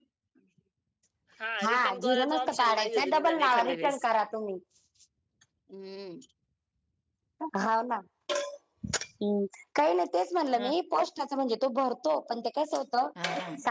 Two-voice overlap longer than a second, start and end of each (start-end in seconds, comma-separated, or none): 1.8-4.0